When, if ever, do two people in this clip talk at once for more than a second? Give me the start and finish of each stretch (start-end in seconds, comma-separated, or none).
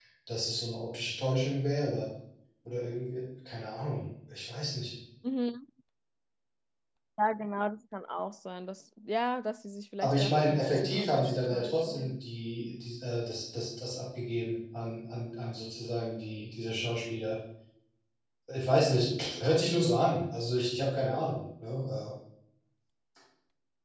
10.0-12.2